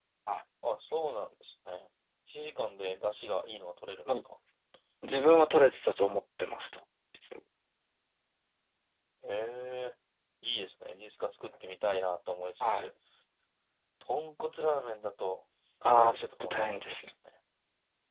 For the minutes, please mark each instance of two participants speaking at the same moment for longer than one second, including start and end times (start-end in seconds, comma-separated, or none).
15.8-17.1